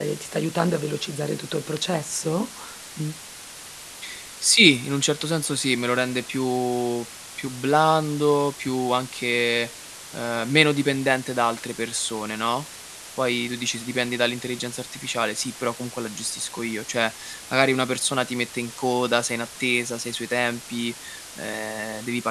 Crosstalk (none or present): none